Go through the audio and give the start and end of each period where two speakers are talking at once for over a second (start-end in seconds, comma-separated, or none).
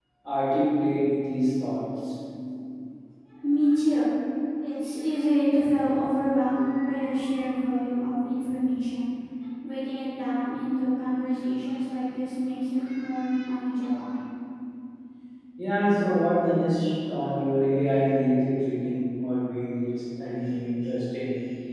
none